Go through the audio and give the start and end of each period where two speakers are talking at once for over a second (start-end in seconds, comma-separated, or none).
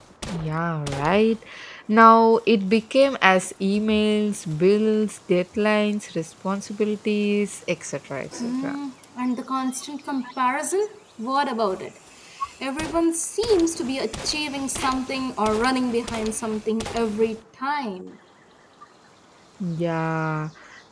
none